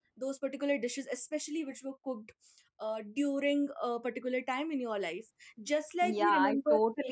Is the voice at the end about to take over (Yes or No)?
Yes